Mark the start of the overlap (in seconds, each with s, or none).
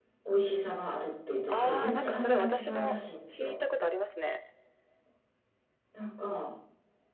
1.5 s